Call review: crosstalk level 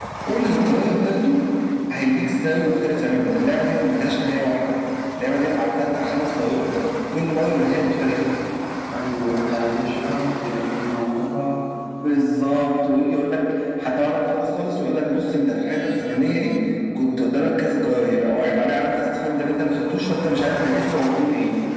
none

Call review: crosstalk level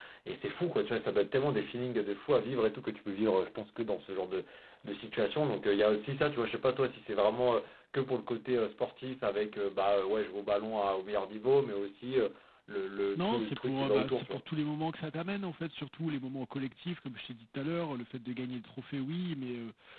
present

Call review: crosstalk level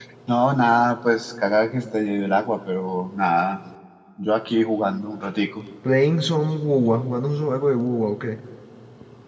none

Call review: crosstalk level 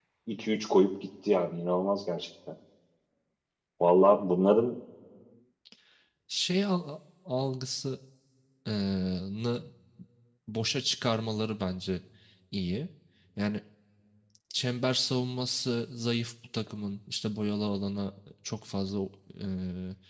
none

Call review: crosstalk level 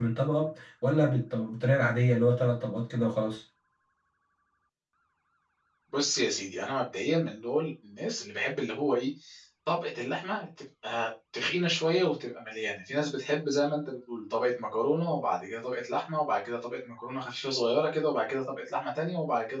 none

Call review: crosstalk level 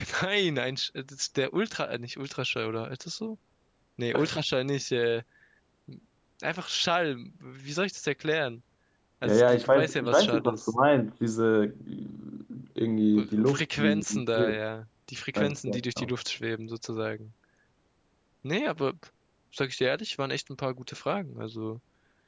present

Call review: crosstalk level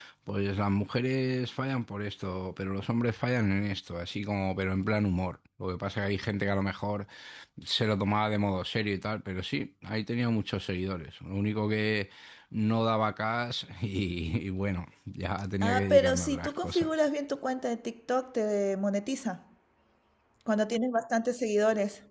present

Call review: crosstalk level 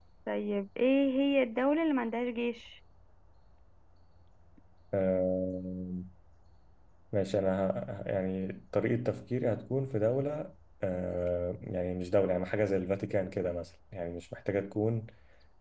none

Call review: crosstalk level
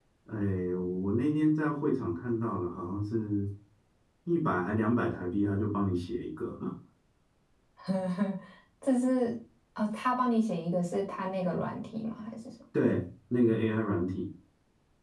none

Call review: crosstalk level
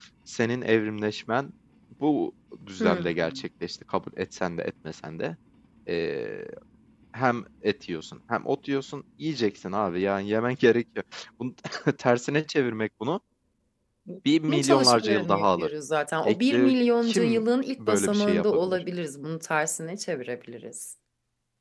present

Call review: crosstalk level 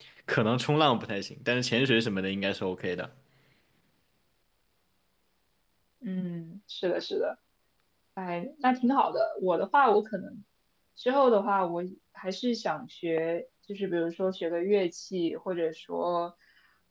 none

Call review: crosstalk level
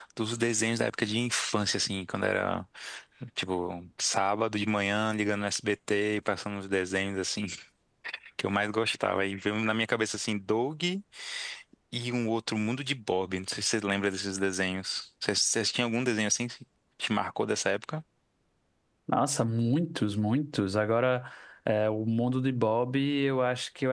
none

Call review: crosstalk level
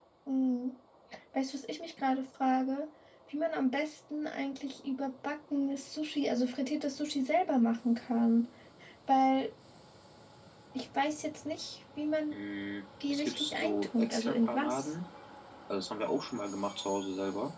present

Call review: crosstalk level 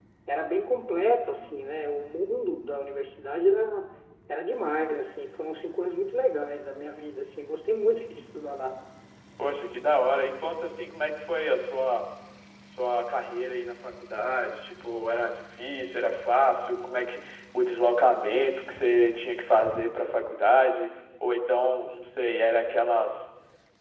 none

